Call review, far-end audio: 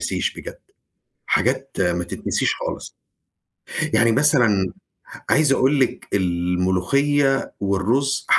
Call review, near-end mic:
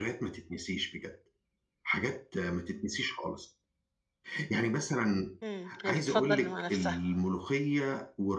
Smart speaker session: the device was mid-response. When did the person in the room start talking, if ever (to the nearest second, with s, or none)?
5 s